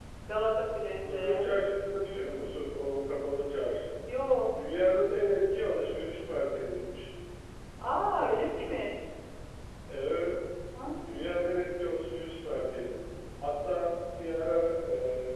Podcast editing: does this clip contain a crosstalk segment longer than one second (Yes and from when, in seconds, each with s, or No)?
No